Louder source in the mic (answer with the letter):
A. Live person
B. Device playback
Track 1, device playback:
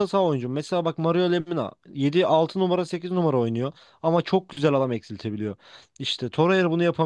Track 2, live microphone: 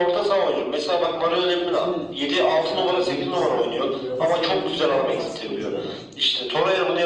B